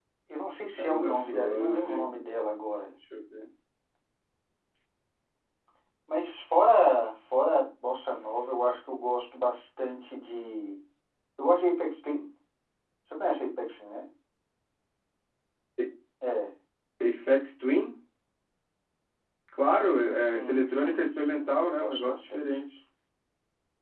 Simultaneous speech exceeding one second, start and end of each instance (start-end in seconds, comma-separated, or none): 0.8-2.1, 20.2-22.4